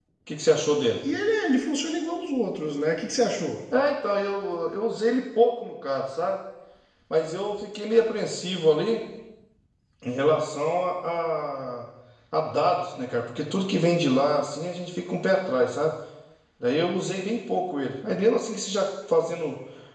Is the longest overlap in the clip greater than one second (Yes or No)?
No